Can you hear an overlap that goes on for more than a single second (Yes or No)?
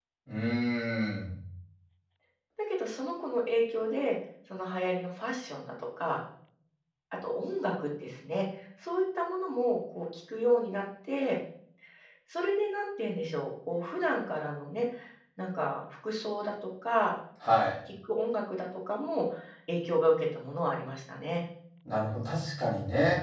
No